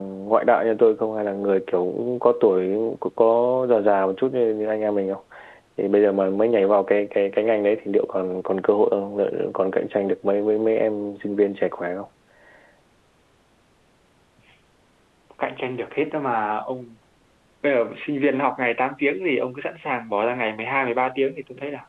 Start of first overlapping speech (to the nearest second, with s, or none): none